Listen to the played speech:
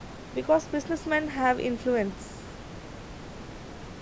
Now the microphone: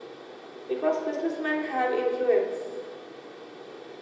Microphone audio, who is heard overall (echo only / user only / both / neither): echo only